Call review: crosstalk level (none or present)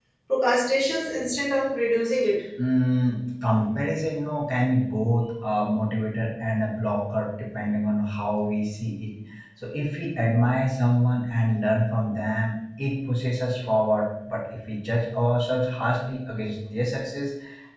none